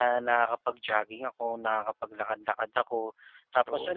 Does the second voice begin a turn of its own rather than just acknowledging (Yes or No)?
No